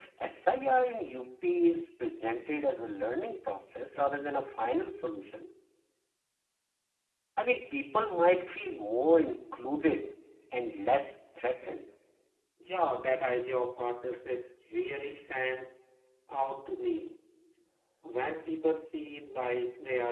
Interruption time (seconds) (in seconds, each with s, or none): none